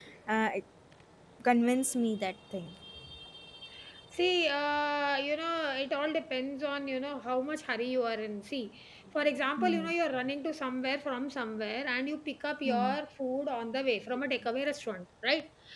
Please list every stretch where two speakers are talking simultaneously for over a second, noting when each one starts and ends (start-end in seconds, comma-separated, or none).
none